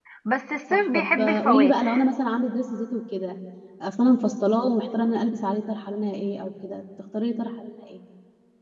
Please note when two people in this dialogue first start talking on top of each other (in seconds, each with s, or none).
0.7 s